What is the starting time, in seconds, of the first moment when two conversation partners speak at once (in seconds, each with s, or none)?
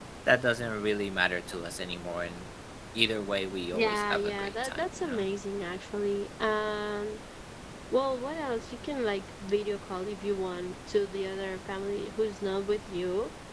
3.7 s